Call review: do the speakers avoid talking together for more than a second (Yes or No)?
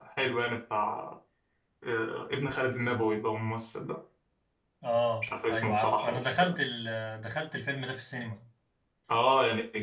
No